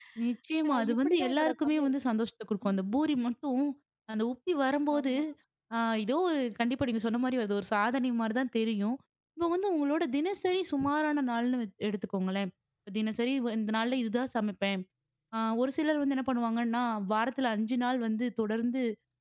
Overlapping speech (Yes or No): Yes